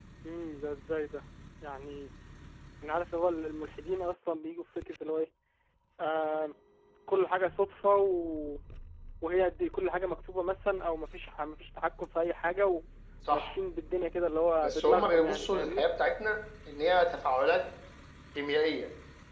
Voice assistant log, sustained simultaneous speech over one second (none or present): present